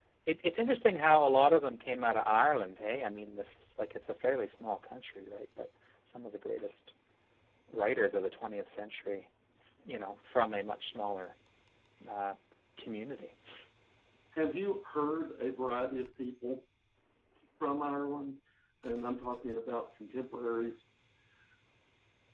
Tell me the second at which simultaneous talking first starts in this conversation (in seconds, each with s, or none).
none